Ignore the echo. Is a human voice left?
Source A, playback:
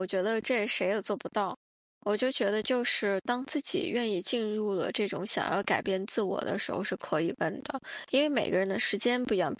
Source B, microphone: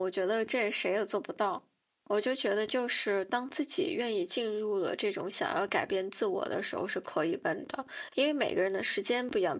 No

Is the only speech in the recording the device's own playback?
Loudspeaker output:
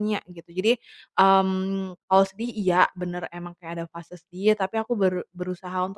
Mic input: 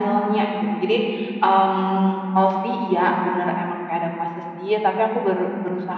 Yes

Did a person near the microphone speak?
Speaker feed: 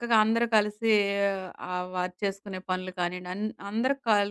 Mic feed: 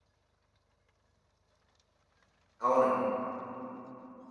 Yes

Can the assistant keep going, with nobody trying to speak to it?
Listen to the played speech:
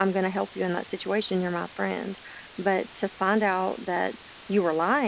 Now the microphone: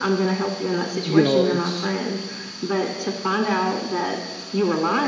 No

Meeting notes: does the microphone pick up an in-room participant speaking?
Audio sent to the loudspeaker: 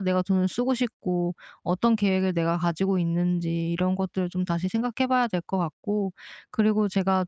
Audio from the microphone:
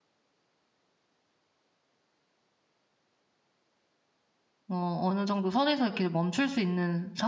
Yes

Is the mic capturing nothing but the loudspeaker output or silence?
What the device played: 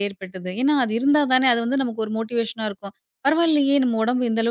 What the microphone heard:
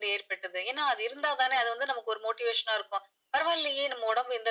Yes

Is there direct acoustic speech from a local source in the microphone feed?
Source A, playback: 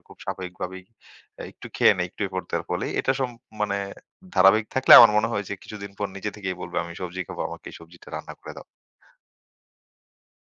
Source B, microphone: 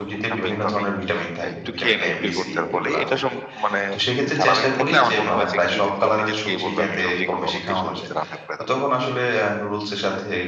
Yes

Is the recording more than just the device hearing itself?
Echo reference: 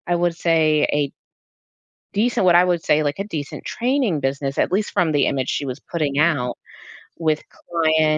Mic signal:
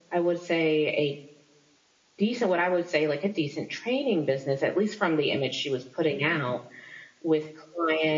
No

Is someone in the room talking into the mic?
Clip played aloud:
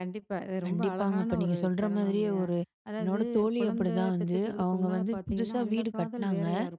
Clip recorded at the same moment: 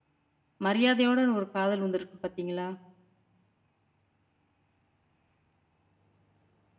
Yes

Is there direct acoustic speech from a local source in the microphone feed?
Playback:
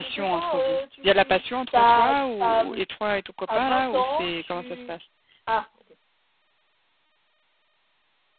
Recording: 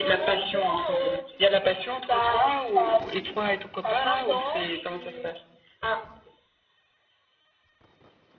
No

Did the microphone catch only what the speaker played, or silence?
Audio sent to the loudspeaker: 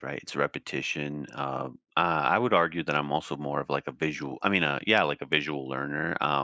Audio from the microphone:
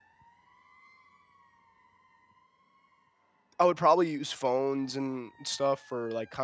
No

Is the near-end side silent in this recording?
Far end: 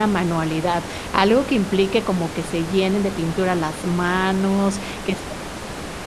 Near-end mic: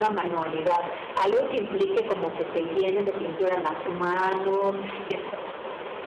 Yes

